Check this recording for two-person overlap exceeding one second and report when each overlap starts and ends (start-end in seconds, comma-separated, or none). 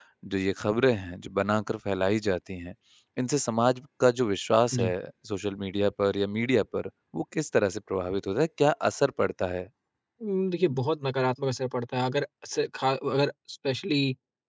none